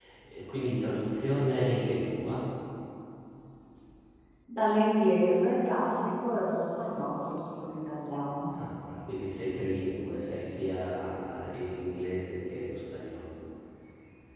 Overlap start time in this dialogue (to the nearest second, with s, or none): none